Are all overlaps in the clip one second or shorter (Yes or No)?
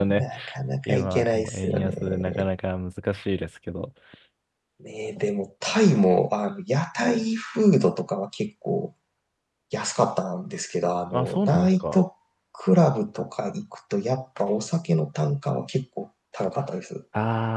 No